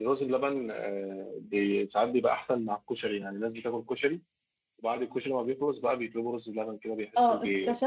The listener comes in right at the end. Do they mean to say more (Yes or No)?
Yes